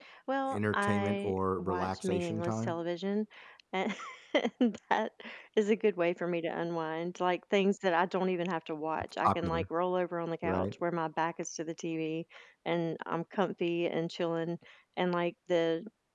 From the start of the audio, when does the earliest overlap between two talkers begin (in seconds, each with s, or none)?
0.5 s